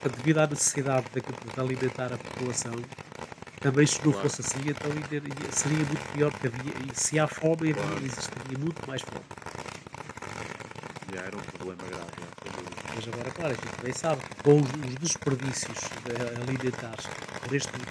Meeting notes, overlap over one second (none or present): none